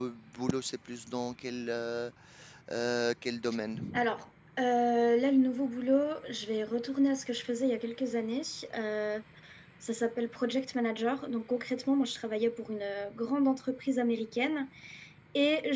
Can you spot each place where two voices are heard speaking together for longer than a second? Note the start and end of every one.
none

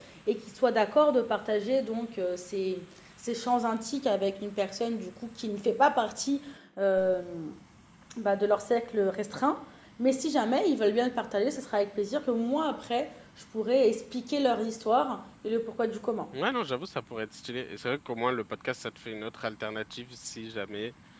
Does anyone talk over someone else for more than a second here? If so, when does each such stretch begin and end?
none

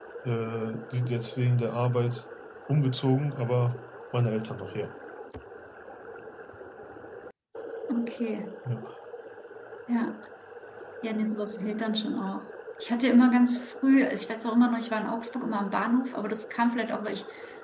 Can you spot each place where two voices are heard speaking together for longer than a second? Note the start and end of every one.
none

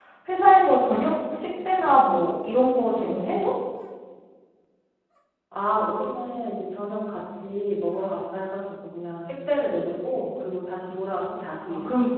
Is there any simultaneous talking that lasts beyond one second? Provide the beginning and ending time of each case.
none

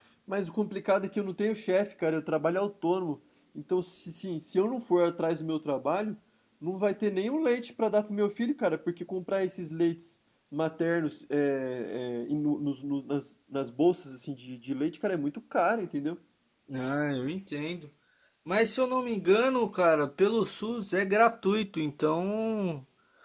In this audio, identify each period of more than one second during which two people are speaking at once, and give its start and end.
none

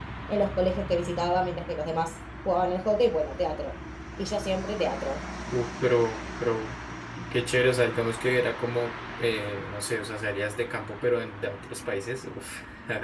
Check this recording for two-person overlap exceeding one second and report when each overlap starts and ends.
none

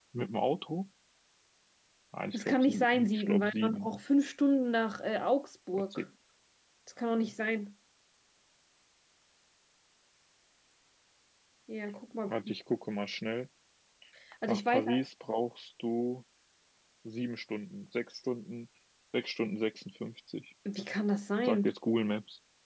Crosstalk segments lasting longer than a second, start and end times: 2.3-3.9

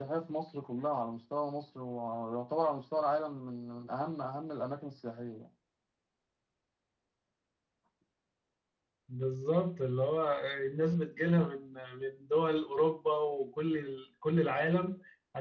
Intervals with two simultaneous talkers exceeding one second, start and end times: none

